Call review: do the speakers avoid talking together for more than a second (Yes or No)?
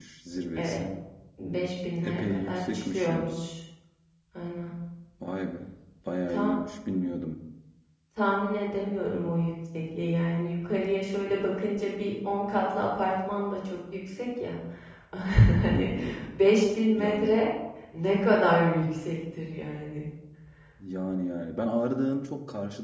No